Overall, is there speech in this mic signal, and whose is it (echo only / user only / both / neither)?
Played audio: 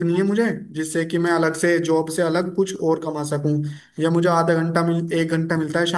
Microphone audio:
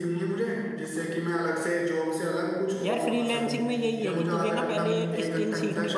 both